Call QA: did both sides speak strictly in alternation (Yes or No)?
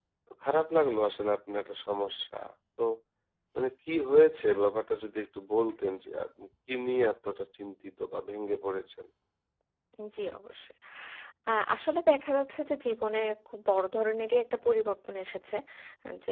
Yes